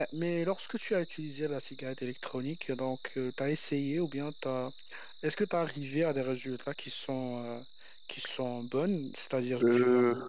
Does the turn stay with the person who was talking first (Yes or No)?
Yes